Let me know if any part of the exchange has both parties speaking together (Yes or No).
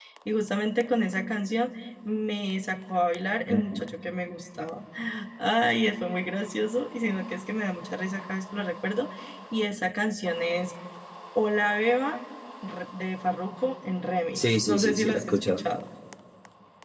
Yes